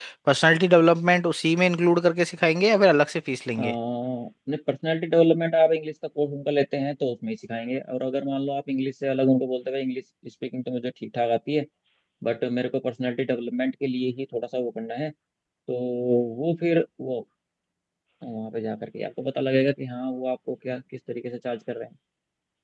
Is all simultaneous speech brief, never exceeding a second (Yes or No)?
Yes